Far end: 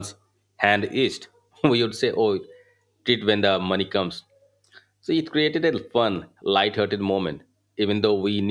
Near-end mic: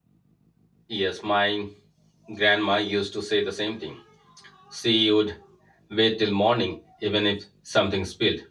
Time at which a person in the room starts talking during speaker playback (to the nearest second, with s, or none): 1 s